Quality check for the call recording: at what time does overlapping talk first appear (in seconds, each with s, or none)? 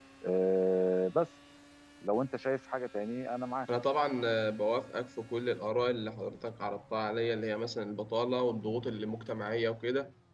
none